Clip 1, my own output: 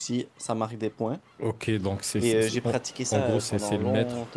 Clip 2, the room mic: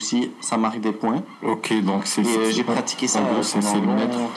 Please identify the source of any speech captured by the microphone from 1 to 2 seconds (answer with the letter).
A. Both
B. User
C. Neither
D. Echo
D